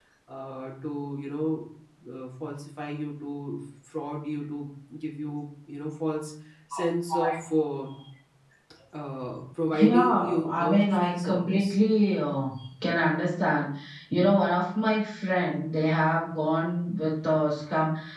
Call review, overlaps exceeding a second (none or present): present